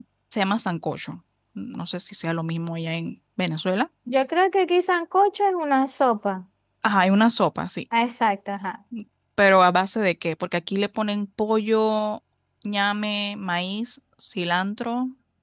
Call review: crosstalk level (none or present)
none